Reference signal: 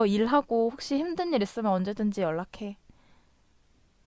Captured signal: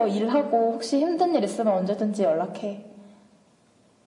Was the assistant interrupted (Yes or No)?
No